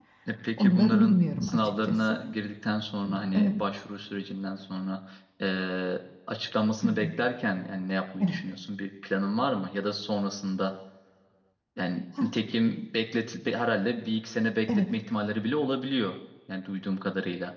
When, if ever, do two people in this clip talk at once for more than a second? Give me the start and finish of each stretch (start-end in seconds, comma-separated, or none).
0.6-2.2